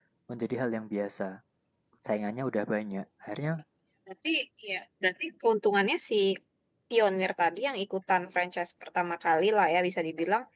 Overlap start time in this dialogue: none

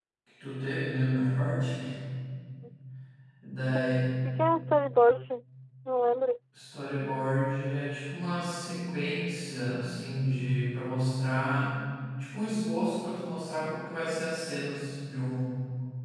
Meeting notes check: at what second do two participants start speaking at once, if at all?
none

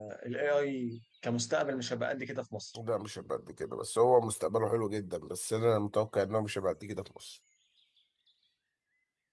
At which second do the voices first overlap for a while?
none

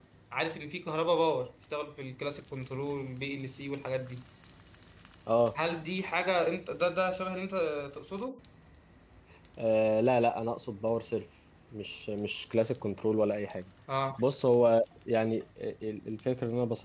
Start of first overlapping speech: none

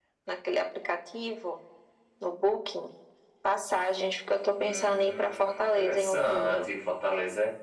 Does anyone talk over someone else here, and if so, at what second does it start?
4.6 s

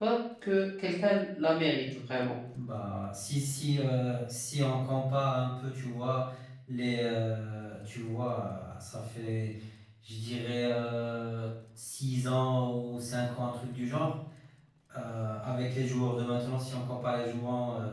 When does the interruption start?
none

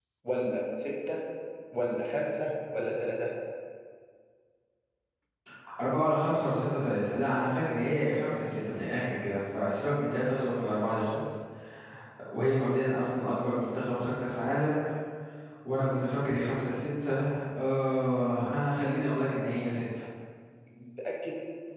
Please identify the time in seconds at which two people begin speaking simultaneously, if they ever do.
none

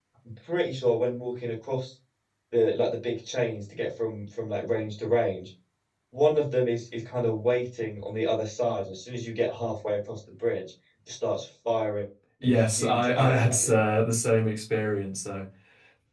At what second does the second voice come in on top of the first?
12.5 s

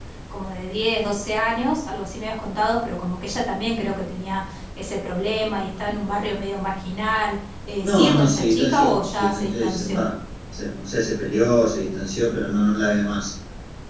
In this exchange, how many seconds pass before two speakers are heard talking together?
7.8 s

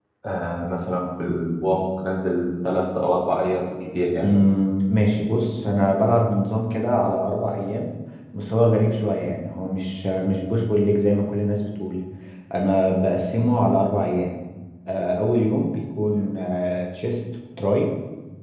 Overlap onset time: none

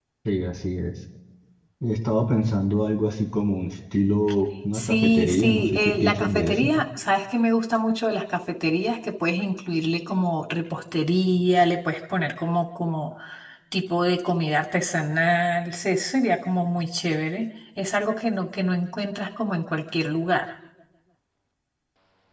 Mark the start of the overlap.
4.7 s

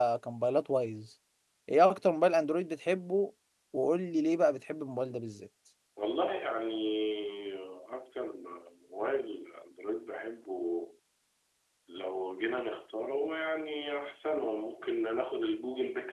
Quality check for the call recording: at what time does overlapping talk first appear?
none

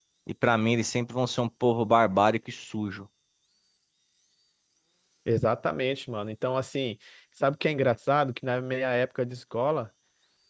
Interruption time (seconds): none

